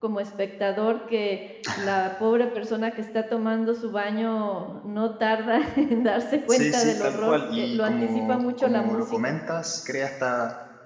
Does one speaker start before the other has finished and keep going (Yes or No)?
Yes